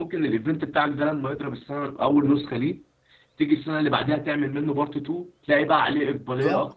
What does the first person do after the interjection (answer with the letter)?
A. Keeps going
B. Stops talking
B